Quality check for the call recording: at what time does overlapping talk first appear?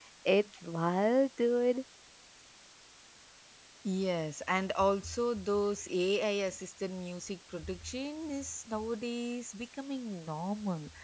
none

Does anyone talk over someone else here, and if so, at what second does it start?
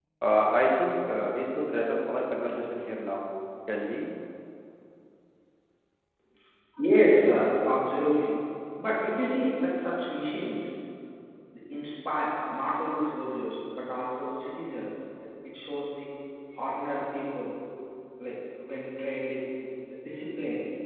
none

